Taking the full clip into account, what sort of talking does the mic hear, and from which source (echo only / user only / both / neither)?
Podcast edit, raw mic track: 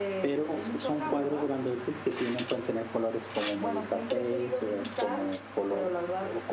echo only